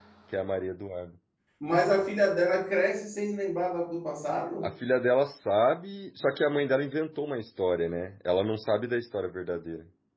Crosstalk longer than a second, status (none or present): none